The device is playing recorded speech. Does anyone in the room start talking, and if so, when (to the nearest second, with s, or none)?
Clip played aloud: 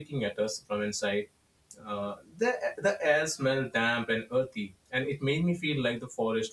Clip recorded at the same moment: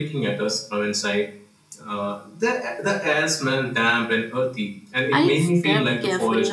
5 s